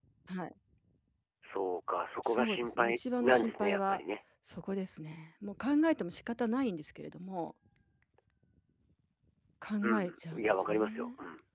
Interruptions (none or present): present